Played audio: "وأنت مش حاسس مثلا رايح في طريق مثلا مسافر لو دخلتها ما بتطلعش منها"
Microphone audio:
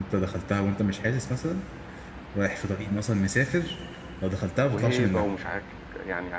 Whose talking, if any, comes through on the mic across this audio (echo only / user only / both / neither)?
both